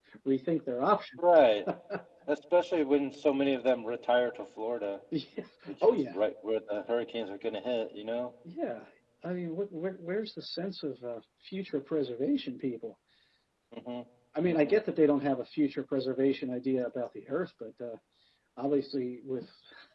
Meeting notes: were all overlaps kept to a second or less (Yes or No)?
Yes